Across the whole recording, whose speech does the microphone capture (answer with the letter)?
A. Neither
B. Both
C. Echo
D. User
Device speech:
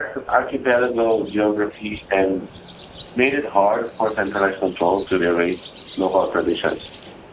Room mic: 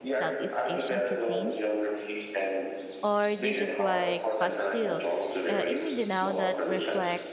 B